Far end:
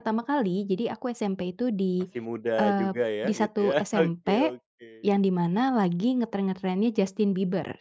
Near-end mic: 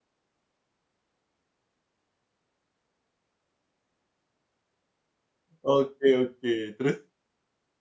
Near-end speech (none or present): present